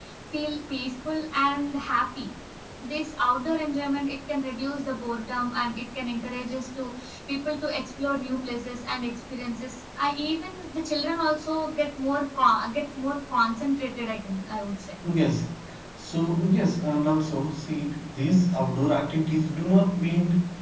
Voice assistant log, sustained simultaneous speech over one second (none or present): none